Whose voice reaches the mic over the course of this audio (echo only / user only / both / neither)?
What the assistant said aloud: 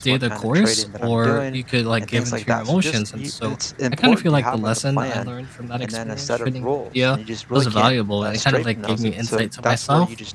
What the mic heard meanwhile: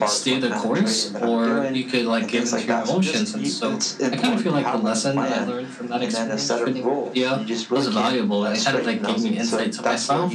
echo only